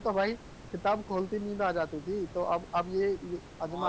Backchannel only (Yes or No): No